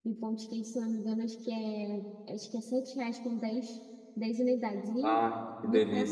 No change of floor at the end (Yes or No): No